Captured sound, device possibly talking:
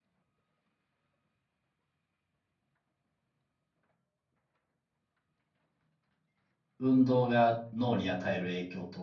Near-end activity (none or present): present